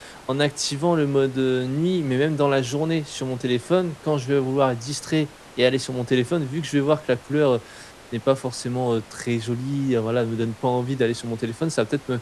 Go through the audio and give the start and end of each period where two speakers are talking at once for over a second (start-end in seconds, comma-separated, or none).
none